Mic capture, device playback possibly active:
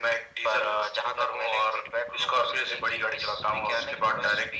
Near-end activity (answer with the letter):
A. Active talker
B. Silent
B